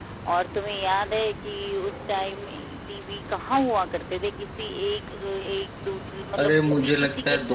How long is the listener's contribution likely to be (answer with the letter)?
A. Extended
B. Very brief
A